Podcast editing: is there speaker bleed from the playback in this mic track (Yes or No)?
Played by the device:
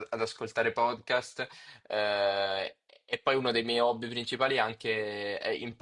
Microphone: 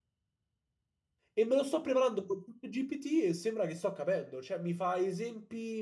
No